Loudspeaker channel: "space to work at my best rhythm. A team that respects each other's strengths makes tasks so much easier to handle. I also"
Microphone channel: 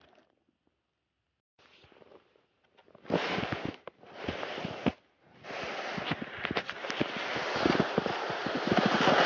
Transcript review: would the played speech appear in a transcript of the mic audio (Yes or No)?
No